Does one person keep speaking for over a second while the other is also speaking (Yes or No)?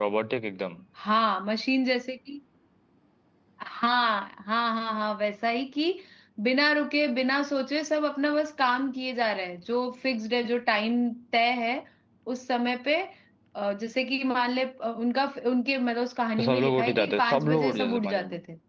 Yes